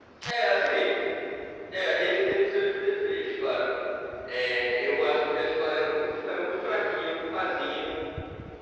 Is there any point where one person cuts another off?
No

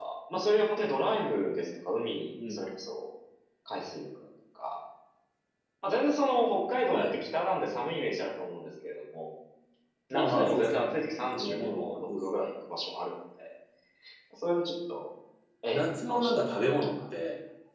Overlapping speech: Yes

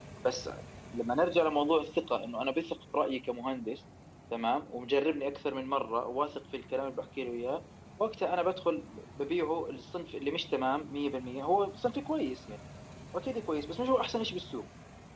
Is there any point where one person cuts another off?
No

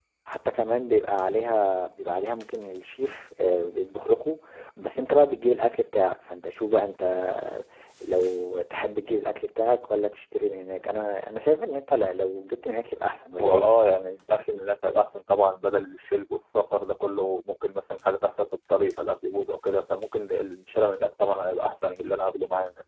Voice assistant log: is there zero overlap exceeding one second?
Yes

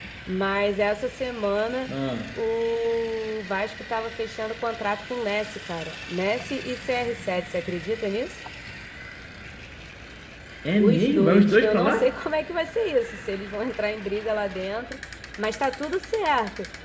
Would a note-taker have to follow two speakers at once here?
Yes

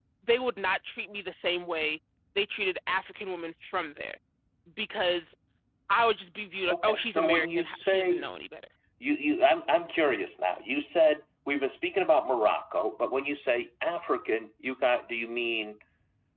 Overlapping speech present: Yes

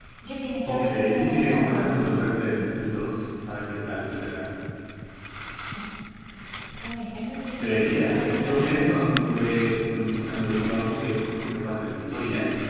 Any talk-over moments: Yes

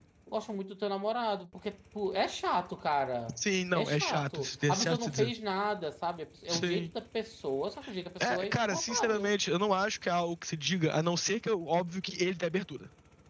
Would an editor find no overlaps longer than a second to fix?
No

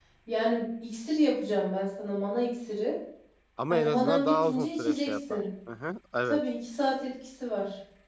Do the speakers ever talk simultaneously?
Yes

